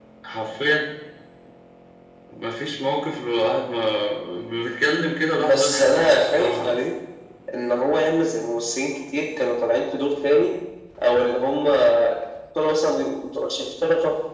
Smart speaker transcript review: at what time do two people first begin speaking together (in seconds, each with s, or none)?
5.4 s